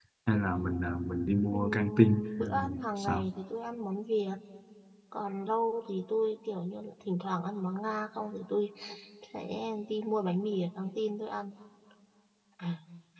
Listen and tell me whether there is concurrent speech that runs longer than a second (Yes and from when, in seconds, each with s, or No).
Yes, from 1.5 s